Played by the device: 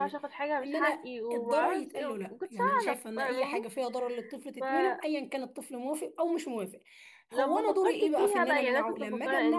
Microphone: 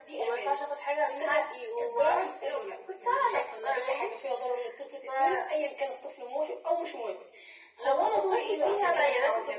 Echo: present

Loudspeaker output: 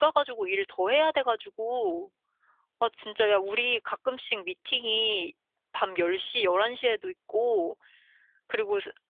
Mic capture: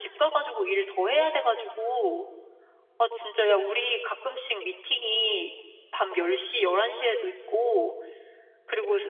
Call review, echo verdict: present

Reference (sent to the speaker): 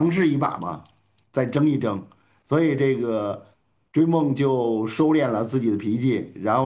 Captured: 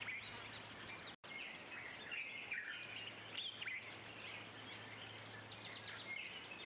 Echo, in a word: none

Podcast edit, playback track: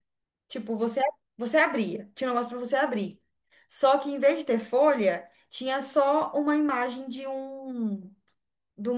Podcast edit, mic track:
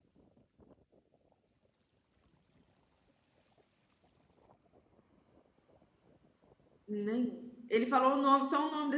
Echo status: none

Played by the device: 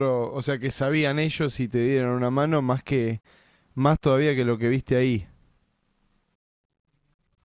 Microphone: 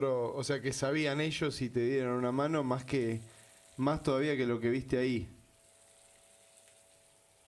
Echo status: present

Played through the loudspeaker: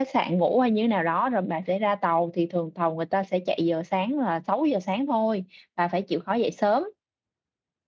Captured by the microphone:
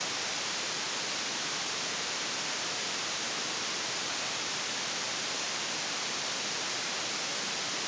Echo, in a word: none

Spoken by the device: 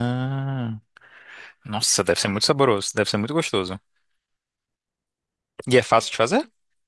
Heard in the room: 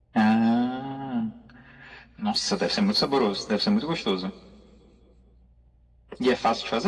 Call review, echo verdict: present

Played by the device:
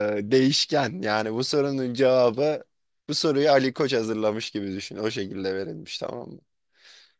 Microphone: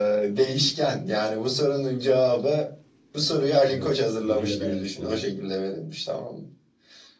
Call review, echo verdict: present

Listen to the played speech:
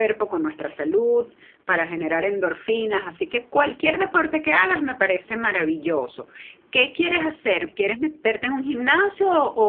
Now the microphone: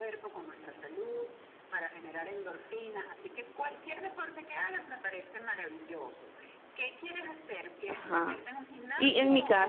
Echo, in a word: present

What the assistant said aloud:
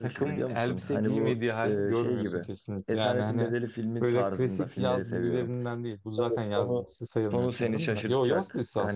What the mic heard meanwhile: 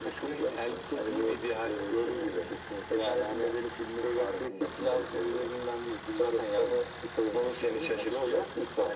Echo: present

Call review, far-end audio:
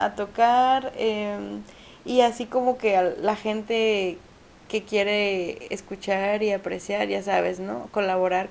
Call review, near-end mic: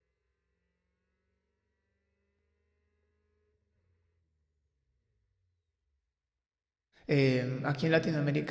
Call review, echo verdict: none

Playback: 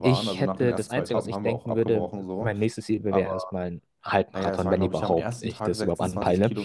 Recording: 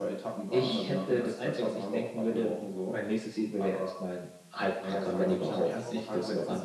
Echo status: present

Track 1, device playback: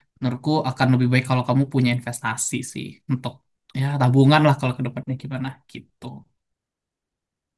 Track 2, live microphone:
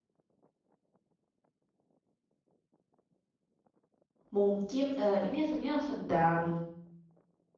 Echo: none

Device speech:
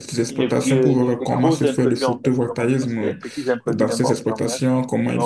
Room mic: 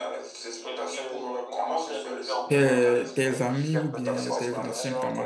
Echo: present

